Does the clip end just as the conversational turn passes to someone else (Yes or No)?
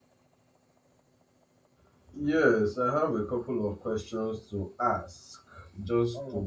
No